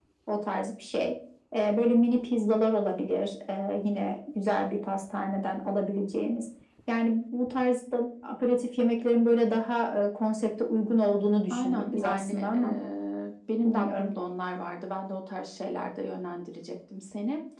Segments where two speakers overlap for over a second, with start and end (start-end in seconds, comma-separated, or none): 11.5-12.8